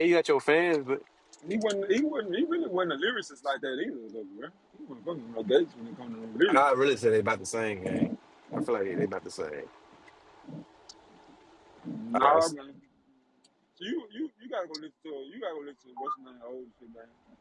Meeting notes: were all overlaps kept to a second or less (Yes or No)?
Yes